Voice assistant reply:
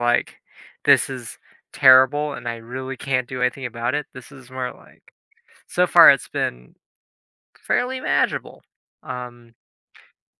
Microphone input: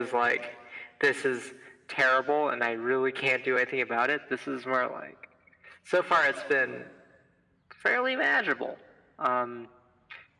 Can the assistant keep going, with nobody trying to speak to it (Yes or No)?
Yes